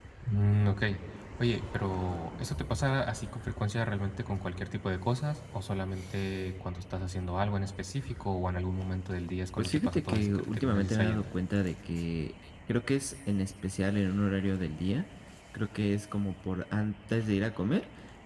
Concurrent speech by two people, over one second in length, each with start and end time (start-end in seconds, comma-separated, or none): 9.6-11.3